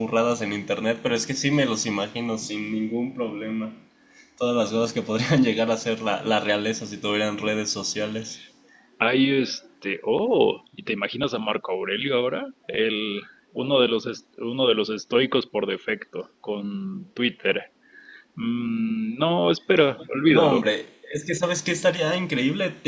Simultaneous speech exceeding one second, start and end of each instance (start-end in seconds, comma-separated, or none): none